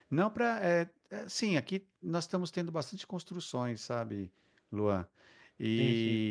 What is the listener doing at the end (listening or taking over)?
listening